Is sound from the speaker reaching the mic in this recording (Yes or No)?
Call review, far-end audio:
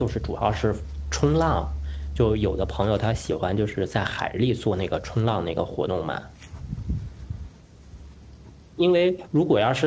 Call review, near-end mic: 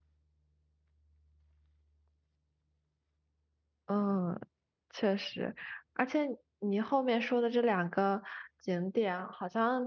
No